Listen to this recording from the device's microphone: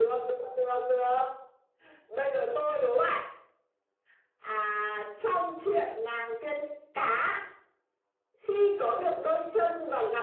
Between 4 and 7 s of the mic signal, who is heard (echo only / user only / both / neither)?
echo only